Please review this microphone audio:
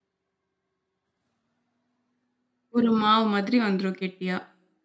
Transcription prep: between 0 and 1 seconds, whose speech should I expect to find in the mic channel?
neither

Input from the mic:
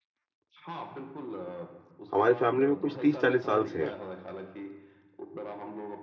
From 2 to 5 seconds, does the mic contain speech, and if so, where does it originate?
both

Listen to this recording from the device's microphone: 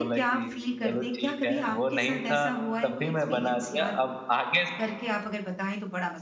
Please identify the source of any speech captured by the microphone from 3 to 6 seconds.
both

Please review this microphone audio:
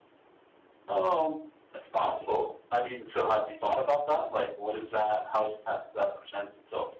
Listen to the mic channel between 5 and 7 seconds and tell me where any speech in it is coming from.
echo only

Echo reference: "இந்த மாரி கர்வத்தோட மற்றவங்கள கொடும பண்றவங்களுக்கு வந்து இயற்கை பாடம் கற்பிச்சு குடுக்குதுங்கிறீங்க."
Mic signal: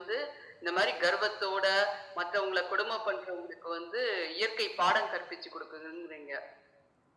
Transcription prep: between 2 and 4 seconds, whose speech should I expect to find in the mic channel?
echo only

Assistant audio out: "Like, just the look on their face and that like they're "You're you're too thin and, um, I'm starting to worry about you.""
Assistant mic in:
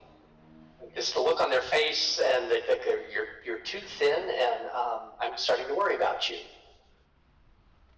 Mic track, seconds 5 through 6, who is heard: echo only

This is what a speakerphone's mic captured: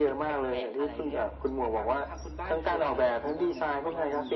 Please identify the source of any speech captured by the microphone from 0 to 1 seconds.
echo only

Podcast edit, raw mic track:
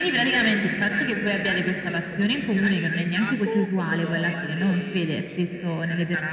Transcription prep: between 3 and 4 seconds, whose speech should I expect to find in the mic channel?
both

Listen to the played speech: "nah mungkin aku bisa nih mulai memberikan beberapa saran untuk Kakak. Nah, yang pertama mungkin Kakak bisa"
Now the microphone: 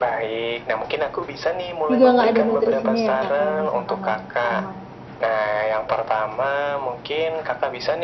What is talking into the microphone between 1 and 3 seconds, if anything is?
both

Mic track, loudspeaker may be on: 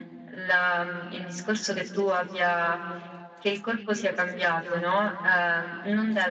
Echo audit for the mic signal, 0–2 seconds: echo only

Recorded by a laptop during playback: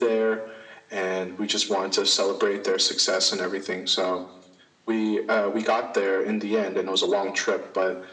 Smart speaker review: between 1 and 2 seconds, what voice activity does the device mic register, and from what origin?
echo only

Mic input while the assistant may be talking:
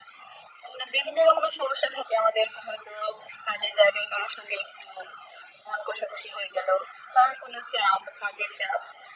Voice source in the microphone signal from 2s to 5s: echo only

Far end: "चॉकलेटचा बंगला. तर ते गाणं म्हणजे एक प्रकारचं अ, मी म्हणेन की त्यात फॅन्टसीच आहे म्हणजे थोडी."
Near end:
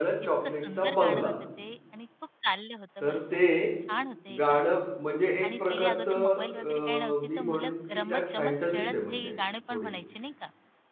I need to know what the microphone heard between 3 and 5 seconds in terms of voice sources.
both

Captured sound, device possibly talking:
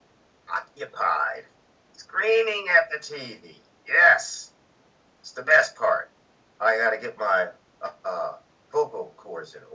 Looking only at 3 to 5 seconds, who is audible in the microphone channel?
echo only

